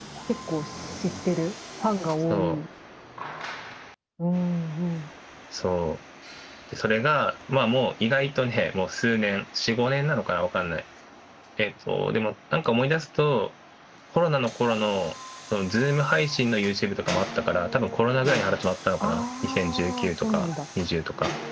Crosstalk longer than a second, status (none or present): present